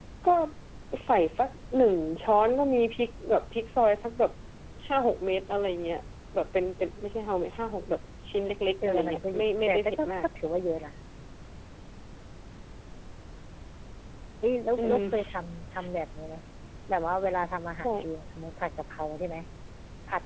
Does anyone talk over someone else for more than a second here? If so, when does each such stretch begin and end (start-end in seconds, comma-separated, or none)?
8.8-10.1